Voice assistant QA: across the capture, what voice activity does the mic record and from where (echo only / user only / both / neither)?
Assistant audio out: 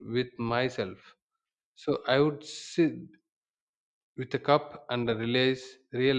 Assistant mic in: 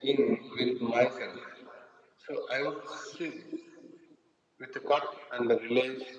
echo only